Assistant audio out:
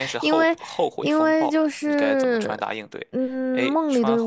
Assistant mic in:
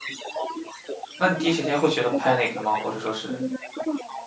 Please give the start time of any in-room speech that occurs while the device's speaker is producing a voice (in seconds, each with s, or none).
1.2 s